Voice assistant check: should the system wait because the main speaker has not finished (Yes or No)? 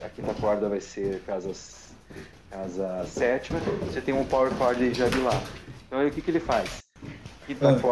Yes